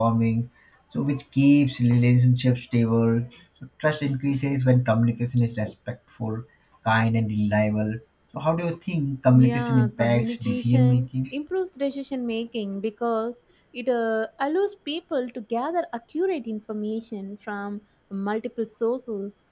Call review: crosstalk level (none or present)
present